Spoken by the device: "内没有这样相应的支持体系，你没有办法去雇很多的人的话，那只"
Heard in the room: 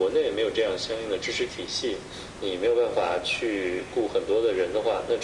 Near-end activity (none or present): none